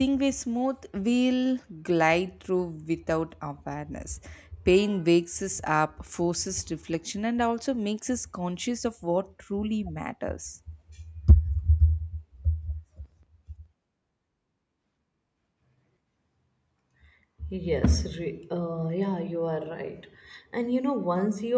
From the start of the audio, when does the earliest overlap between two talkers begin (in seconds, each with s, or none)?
none